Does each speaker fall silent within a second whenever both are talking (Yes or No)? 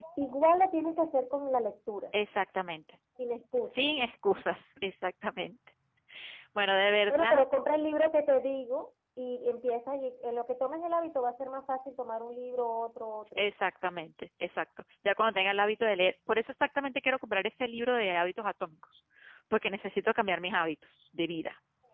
Yes